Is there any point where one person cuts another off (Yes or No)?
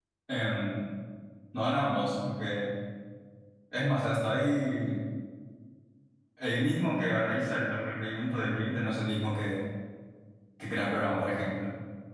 No